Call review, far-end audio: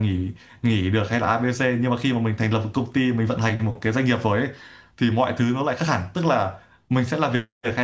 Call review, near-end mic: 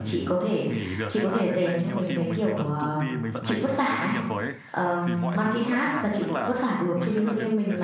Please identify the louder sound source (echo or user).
user